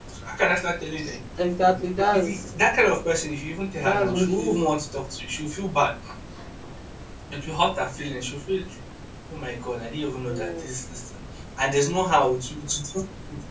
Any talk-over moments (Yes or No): Yes